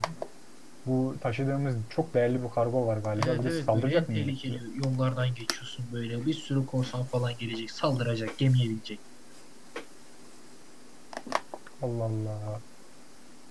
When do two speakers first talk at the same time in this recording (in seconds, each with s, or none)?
3.1 s